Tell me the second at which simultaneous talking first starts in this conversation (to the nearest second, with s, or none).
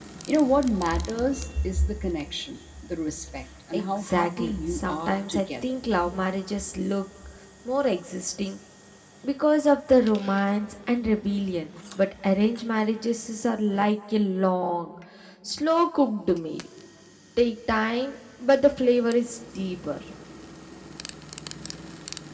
4 s